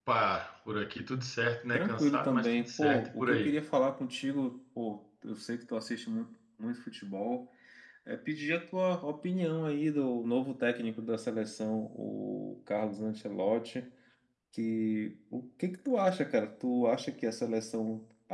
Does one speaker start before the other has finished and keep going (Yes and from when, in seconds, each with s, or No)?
Yes, from 1.7 s